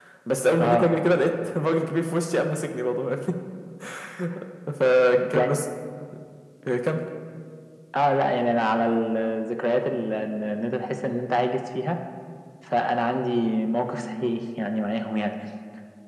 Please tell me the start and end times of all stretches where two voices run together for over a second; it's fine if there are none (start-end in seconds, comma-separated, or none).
none